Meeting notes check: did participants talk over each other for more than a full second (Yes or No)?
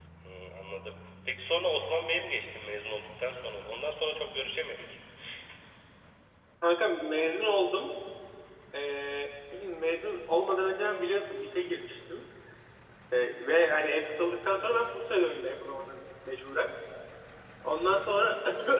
No